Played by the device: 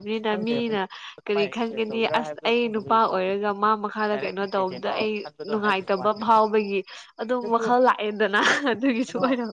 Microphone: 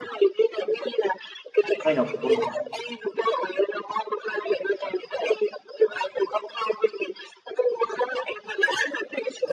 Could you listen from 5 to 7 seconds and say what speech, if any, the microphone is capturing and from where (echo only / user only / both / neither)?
echo only